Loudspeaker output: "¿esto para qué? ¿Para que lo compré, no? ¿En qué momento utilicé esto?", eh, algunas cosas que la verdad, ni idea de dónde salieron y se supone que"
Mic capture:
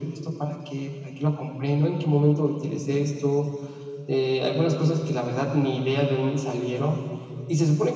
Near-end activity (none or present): none